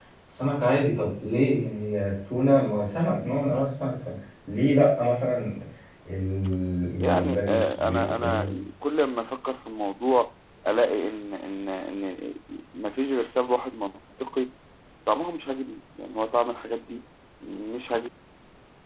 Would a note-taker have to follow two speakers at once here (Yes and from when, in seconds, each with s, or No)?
Yes, from 7.0 s